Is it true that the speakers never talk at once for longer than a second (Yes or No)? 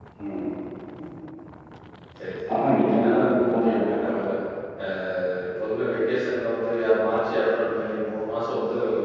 No